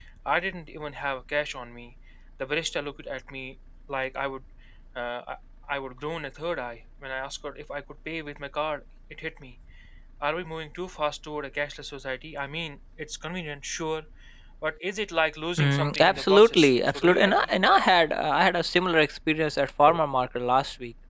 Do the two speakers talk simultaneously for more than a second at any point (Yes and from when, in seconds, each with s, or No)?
Yes, from 15.6 s